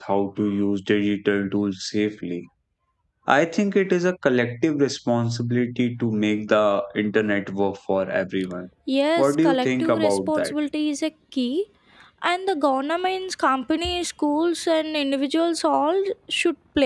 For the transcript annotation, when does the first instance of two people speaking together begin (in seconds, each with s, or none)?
9.2 s